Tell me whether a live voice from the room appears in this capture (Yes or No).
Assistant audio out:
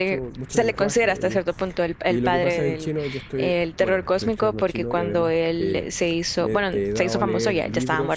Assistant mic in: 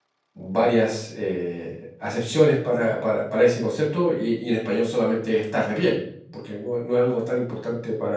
Yes